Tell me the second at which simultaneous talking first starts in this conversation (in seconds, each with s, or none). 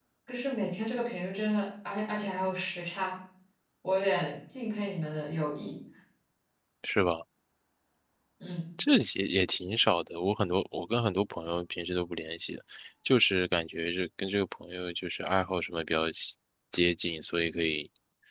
none